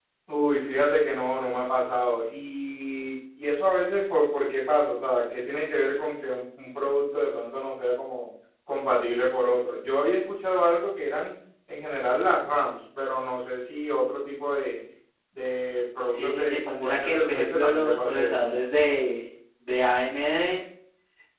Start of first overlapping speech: 16.1 s

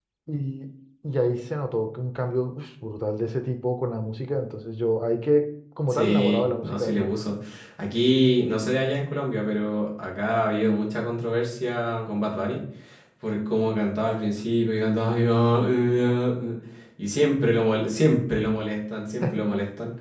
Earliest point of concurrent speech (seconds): 5.9 s

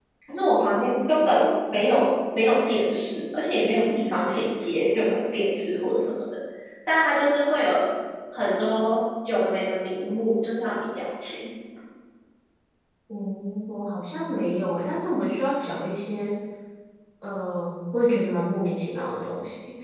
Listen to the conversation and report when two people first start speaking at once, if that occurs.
none

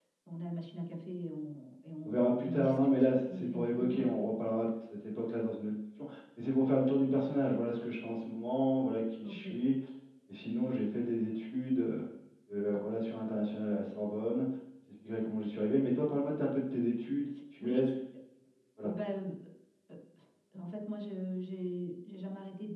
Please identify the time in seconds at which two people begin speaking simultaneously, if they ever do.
2.0 s

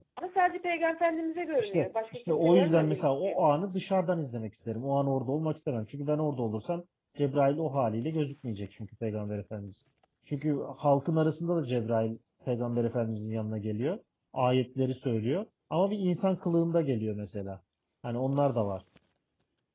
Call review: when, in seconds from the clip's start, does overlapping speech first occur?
1.6 s

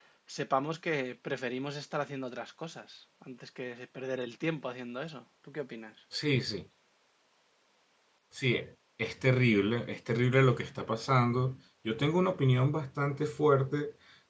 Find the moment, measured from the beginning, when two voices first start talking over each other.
none

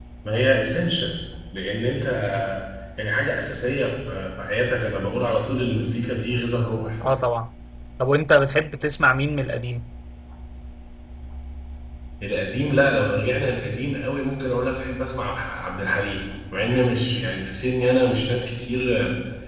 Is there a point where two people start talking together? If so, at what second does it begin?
none

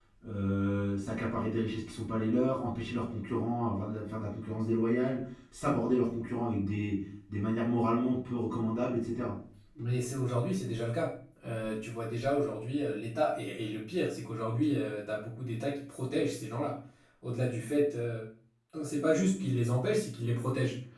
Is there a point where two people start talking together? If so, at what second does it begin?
none

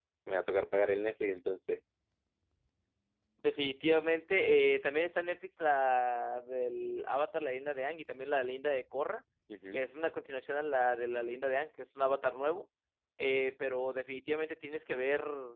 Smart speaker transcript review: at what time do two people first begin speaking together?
none

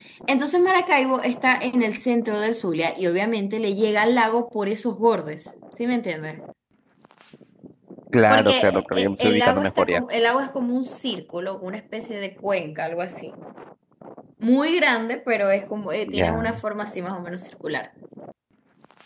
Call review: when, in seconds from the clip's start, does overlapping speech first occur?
8.3 s

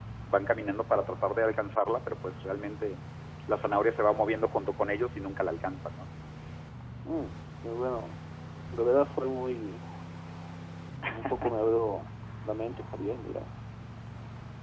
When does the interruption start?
none

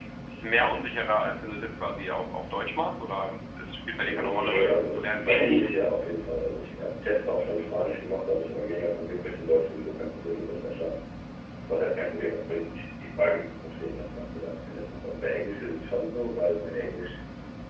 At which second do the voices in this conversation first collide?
4.0 s

